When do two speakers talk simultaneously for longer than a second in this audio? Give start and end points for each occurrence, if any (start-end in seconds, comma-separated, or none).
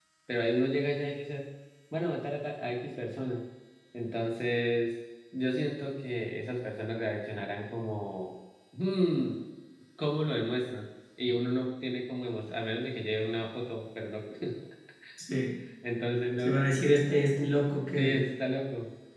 none